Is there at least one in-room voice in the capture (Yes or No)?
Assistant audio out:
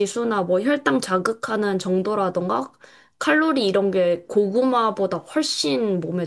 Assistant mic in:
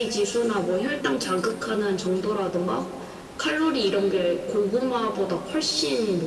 No